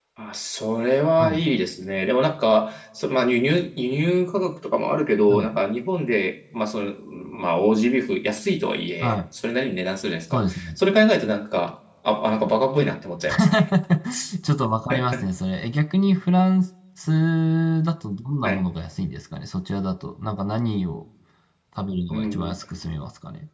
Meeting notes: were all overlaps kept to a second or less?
Yes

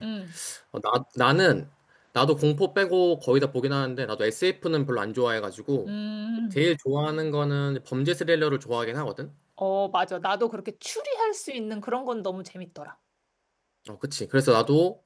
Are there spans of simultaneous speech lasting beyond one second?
No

